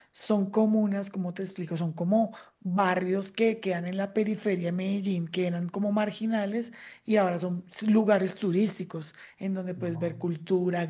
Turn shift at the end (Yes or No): No